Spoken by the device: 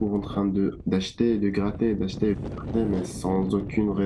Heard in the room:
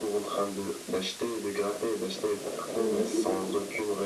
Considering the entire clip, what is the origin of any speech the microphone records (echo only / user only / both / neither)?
both